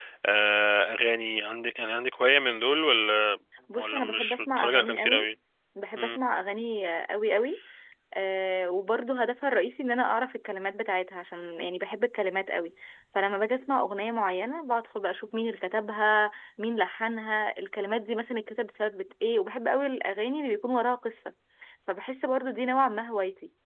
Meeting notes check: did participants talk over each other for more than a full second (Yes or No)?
Yes